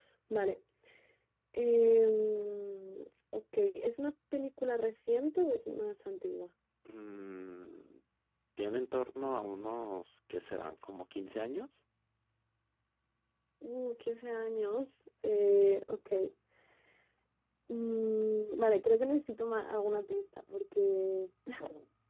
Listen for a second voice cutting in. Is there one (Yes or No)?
No